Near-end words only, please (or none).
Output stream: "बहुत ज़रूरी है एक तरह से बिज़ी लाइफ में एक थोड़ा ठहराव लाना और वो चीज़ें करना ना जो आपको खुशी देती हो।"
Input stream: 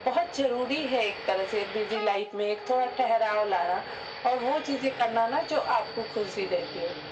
none